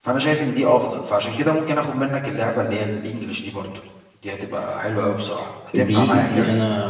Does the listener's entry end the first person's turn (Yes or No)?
Yes